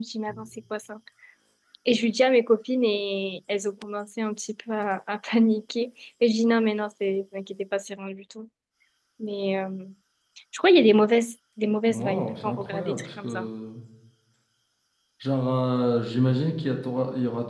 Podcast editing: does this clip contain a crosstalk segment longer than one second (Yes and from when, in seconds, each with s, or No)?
Yes, from 11.9 s